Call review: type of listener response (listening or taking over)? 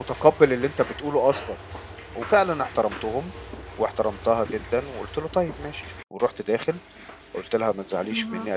listening